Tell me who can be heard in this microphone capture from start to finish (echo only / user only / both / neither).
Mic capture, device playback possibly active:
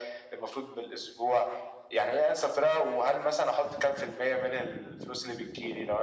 echo only